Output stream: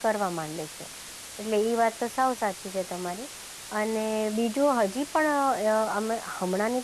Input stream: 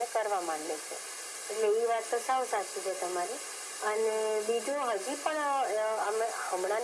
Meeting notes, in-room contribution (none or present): none